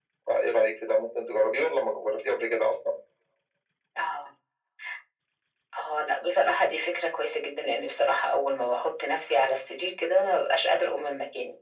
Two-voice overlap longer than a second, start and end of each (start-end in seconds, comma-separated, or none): none